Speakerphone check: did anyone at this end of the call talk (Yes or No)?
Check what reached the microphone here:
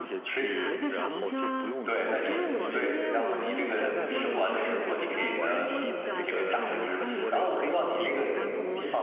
Yes